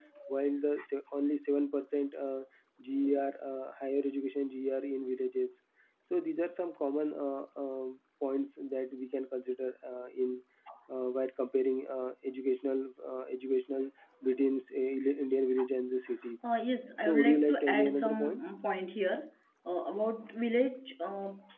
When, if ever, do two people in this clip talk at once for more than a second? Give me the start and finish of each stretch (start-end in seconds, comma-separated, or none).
17.0-18.4